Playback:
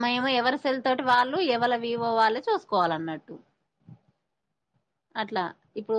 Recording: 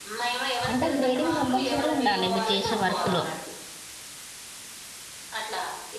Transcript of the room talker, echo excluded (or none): అంటే గ్రేడింగ్ కంపల్సరీ ఉండాలి మీరు? చేసే వర్క్ లో